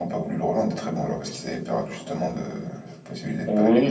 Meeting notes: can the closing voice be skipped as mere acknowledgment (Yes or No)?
No